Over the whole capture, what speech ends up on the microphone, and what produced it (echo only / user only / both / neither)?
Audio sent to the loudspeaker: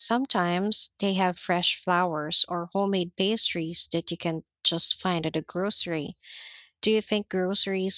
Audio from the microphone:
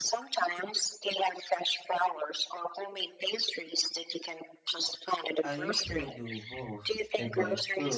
both